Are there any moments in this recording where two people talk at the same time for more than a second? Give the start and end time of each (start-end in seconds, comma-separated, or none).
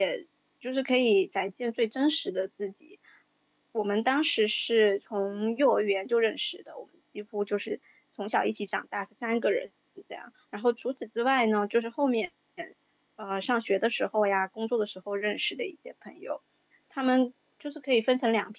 none